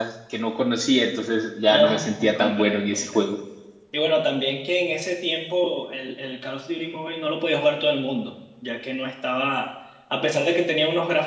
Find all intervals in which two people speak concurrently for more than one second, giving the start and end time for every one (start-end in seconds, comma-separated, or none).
1.7-3.2